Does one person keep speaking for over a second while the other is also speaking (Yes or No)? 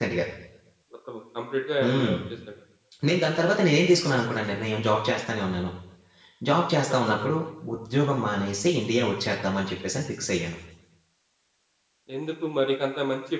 No